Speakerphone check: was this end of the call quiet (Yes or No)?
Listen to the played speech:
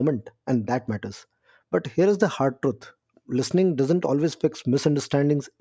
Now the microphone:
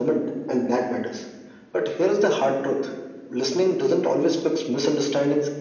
Yes